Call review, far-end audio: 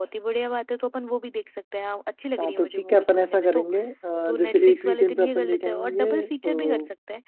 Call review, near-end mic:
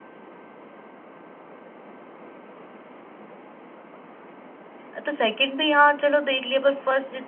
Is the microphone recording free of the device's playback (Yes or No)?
Yes